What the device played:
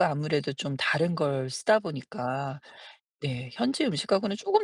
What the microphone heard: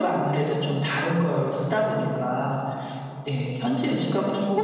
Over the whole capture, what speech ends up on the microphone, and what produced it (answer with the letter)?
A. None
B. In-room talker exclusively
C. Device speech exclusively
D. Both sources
C